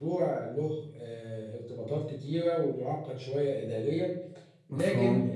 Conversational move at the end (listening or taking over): listening